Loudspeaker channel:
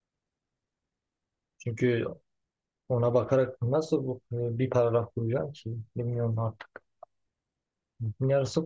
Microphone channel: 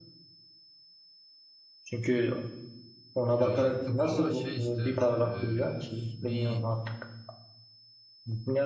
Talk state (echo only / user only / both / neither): both